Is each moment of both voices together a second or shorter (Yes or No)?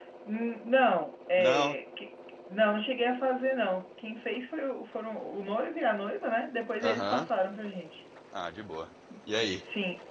Yes